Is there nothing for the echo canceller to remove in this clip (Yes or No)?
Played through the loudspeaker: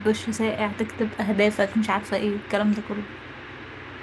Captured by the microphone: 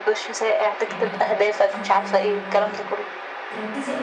No